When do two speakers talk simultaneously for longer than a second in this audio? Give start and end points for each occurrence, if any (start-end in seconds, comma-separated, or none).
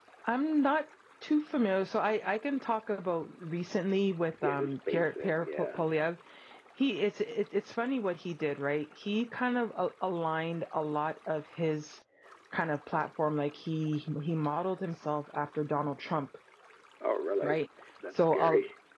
4.4-5.8